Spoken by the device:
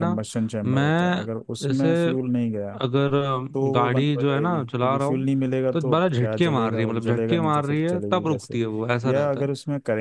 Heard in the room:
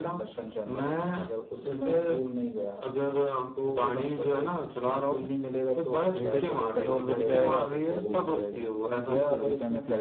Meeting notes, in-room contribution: present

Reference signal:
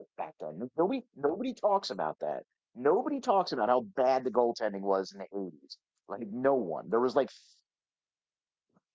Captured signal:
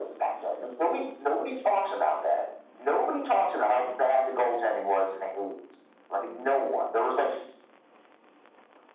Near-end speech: none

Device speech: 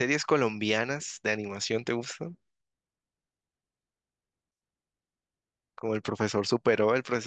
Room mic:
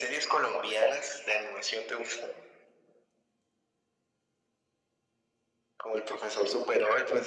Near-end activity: none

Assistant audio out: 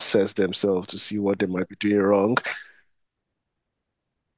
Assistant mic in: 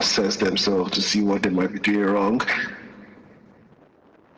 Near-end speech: none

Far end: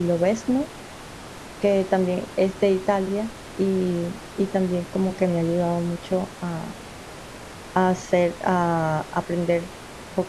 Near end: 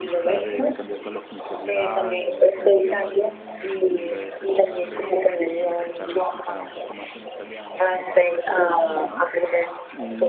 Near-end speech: present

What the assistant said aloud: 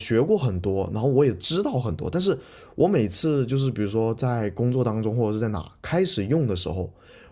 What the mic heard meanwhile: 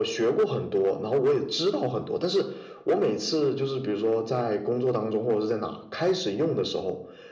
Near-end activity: none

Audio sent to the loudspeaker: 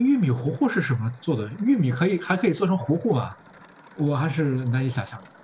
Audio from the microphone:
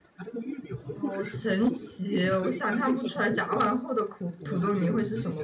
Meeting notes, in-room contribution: present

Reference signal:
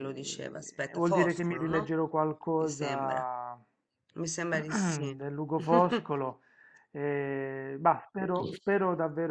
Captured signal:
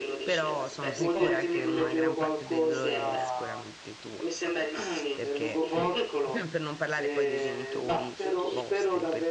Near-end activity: present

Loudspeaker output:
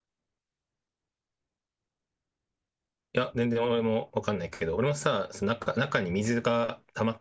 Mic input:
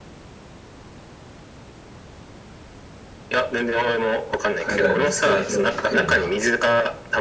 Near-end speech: present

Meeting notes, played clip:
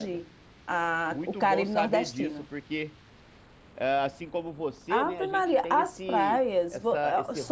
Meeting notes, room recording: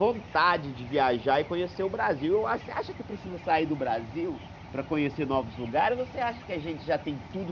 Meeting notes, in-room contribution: present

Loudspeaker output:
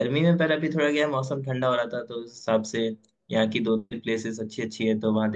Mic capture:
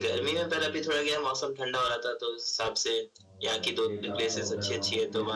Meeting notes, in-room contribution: present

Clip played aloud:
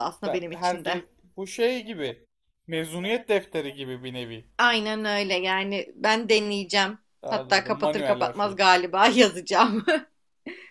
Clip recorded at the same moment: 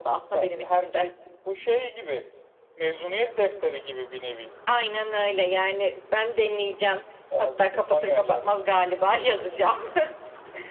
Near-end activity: none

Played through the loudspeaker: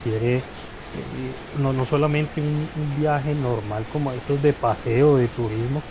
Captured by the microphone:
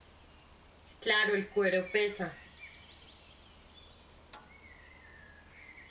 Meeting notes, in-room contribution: present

